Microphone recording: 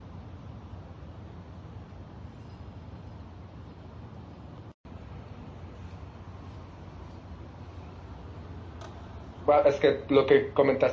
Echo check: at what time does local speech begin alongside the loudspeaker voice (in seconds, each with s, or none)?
9.5 s